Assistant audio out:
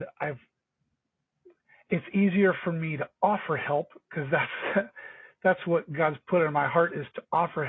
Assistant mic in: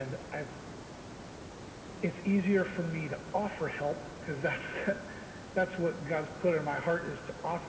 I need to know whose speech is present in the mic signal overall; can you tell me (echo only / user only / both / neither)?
echo only